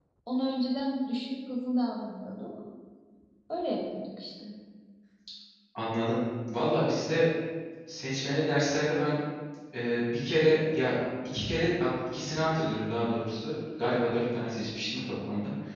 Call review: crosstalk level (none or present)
none